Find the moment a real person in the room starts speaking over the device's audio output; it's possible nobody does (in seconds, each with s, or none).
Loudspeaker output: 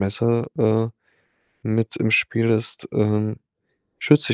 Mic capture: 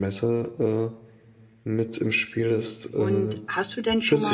3.0 s